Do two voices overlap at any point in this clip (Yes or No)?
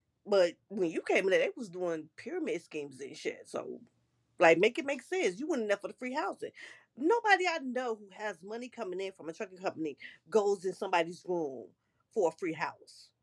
No